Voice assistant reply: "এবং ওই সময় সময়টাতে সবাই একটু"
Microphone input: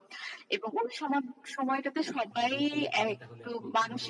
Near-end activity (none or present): present